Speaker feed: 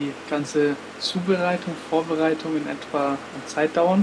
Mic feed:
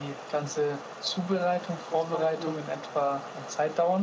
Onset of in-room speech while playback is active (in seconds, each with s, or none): 1.9 s